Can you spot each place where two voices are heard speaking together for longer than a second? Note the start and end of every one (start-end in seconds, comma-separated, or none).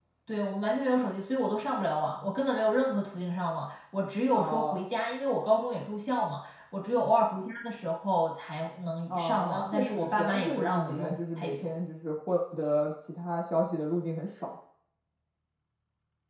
9.1-11.7